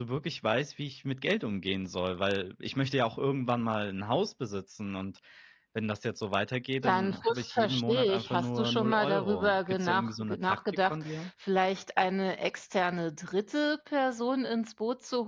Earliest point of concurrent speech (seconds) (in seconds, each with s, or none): 6.8 s